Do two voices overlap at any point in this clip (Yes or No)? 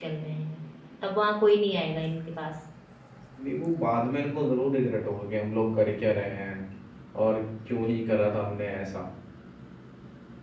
No